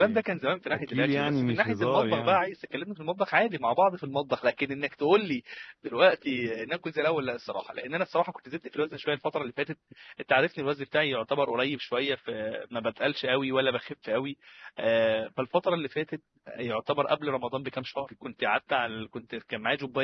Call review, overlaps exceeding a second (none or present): present